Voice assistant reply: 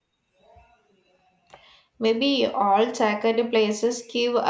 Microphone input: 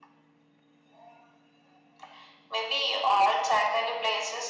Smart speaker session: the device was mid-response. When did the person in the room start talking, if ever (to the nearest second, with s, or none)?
none